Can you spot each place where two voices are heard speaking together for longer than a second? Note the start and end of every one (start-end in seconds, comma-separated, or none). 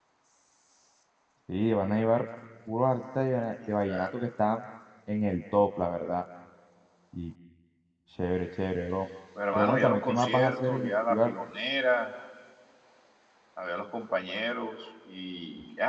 9.6-11.3